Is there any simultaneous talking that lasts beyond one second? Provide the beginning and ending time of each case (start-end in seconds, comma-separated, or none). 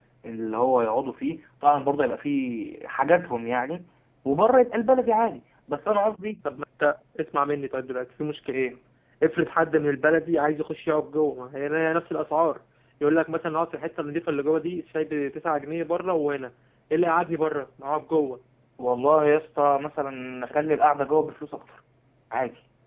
none